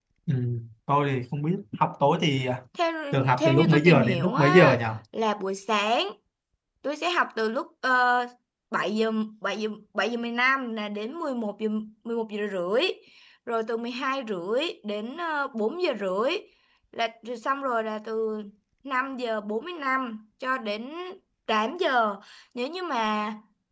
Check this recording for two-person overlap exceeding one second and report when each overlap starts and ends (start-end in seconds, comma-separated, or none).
3.4-4.8